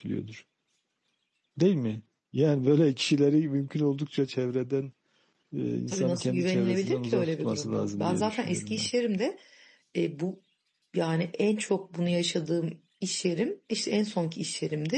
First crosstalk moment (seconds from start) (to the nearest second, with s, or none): 6 s